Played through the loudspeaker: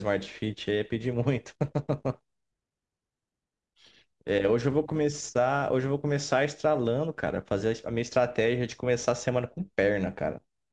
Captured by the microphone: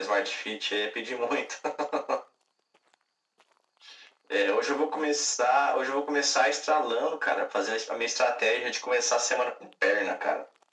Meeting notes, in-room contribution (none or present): none